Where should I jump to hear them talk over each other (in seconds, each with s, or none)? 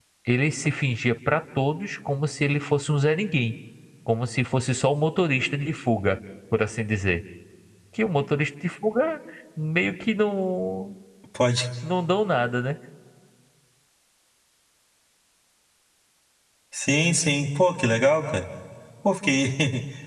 none